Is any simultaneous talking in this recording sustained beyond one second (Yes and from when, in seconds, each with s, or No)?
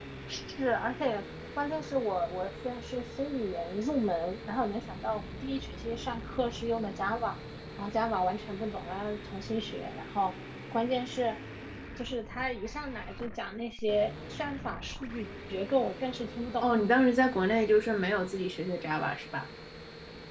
No